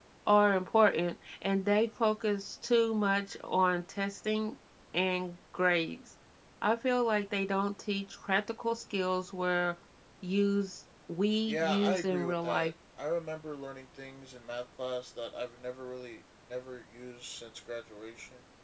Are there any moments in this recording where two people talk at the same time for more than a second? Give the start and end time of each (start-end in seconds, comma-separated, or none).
11.5-12.7